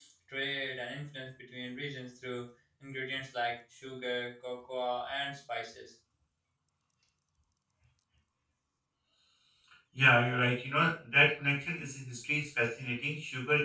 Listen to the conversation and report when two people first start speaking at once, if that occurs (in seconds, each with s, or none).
none